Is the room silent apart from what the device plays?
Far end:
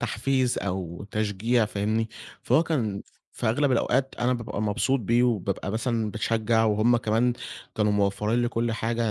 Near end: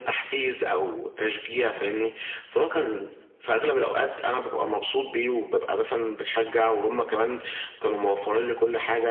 Yes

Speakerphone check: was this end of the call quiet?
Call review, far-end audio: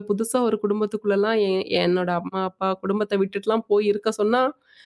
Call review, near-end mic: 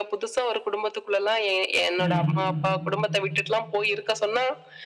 No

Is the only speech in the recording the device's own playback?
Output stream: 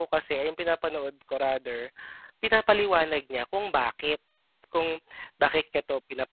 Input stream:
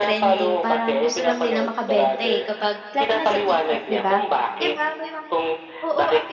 No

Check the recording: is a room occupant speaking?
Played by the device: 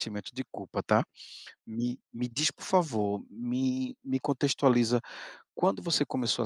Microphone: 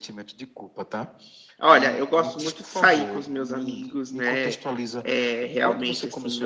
Yes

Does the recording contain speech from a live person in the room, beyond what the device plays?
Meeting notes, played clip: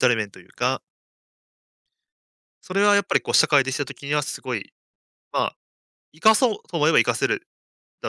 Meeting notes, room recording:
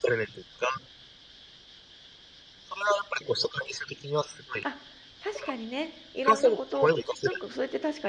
Yes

